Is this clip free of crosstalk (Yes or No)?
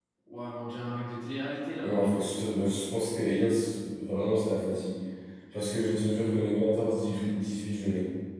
Yes